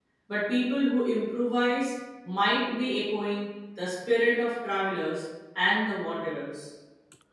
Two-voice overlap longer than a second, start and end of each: none

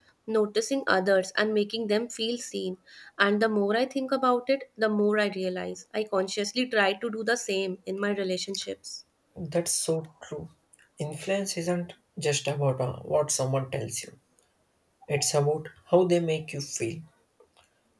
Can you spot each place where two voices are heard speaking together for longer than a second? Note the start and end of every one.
none

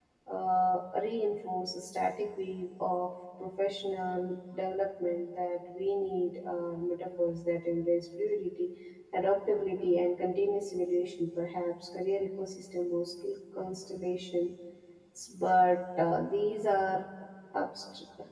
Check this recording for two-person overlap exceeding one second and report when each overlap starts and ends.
none

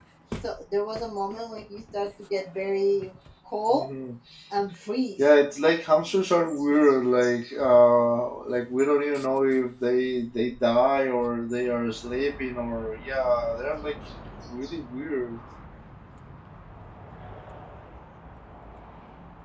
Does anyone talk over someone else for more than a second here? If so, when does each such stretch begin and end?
none

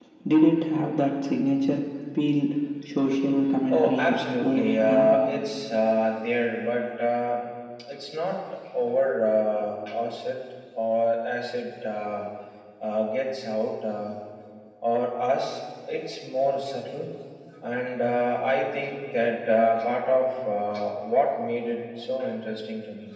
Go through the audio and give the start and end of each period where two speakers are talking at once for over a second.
3.7-5.2

